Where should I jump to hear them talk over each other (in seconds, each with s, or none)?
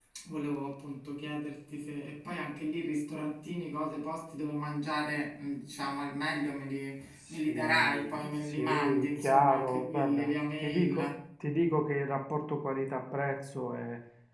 7.3 s